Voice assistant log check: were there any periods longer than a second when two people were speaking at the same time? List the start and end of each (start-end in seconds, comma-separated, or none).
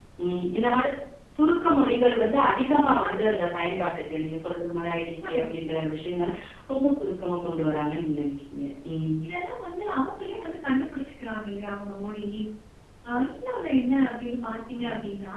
none